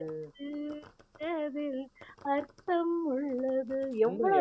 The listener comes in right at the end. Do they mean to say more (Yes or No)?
Yes